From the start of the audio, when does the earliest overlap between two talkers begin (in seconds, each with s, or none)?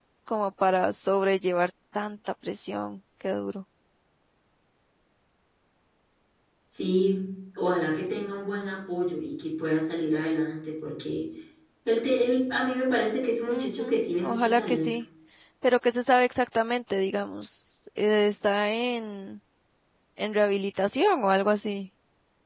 13.5 s